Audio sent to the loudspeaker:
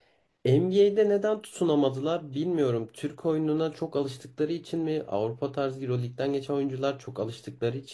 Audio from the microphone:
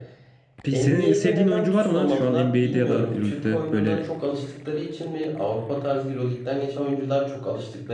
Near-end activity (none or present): present